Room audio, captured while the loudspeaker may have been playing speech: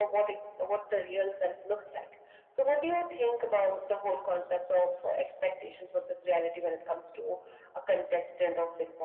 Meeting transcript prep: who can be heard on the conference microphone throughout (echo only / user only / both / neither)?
echo only